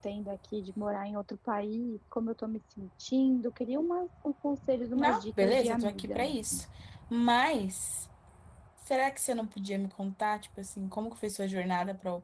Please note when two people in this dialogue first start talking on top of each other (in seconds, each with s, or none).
5.0 s